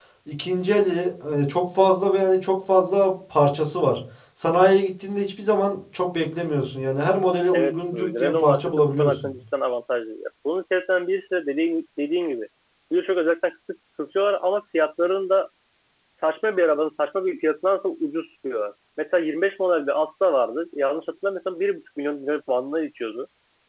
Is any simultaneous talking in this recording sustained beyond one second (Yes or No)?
Yes